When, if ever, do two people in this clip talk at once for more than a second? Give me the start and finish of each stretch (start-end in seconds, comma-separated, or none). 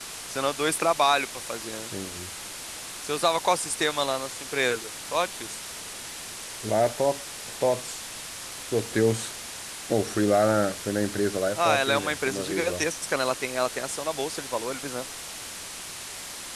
11.6-12.8